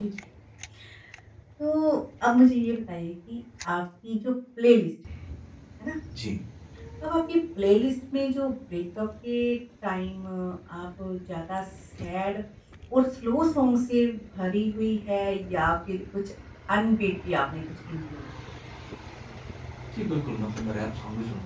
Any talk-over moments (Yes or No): No